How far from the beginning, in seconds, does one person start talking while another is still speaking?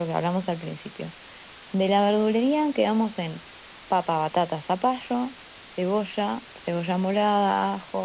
none

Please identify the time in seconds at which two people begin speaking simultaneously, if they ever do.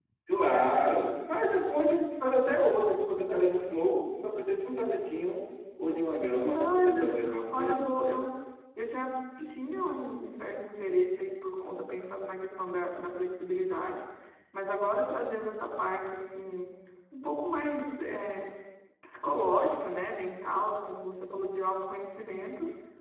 6.3 s

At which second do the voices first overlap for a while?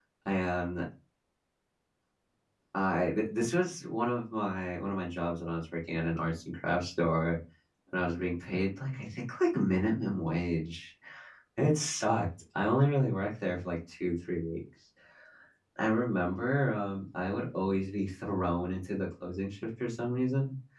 none

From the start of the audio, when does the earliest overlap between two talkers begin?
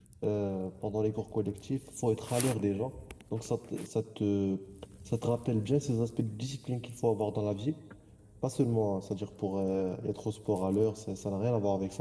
none

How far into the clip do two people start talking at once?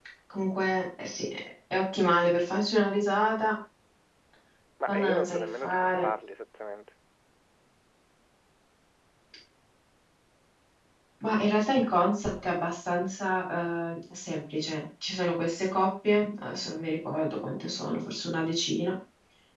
4.8 s

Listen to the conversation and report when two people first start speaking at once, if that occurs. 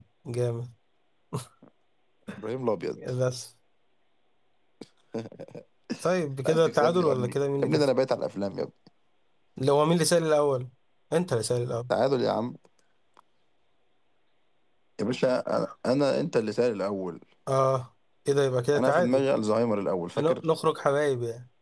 6.5 s

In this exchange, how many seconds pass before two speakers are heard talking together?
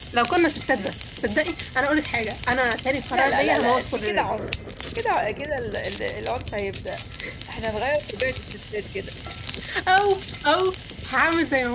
3.1 s

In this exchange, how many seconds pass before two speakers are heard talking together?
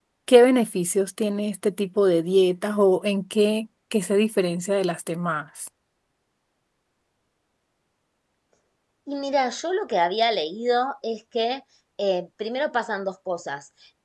none

